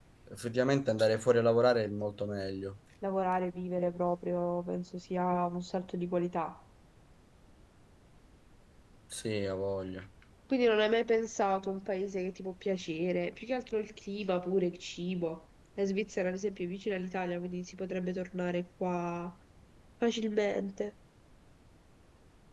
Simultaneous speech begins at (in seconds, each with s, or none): none